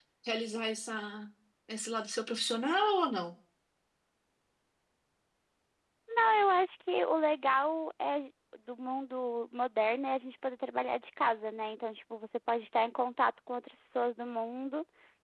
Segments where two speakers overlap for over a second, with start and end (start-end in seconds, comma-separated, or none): none